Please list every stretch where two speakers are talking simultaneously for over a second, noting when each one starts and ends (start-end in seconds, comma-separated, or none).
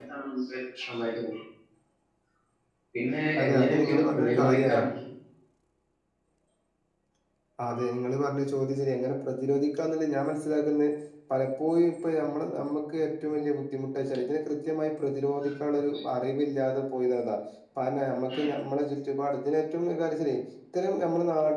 3.4-4.7